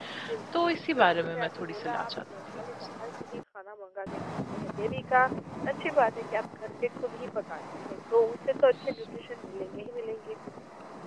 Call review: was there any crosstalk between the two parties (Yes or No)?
Yes